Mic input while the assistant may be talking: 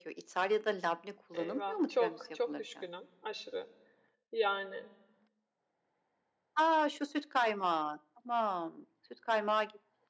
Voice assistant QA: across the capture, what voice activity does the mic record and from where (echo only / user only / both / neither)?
both